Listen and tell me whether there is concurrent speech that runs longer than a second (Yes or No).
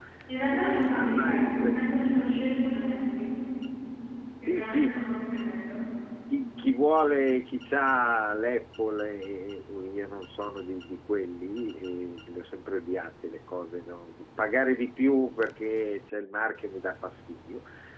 Yes